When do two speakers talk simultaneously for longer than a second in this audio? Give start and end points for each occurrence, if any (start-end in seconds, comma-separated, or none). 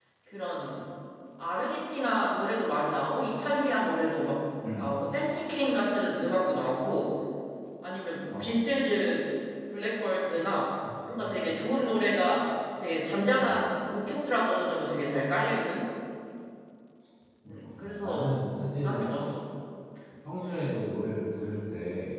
17.8-19.1